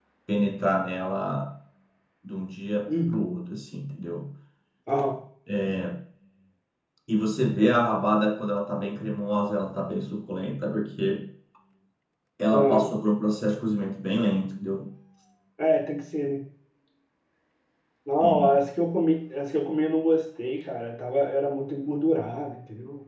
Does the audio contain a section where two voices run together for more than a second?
No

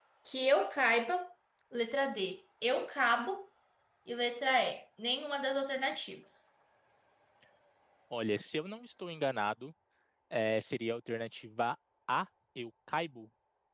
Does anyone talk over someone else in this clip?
No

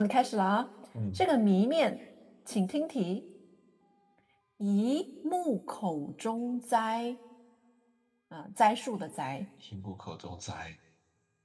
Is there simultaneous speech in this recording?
No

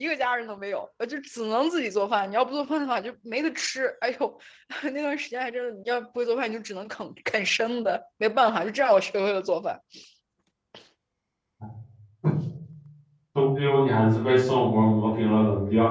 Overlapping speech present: No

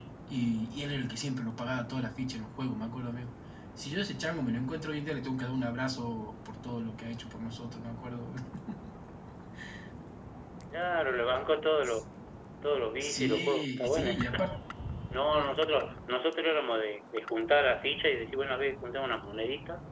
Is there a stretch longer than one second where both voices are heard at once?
Yes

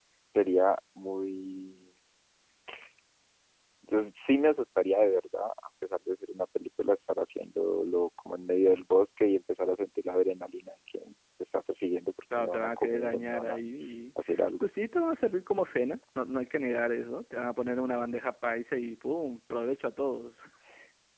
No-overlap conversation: No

